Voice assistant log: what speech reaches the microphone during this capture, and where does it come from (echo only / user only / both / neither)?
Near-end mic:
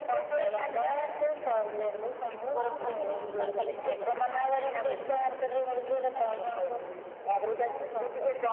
both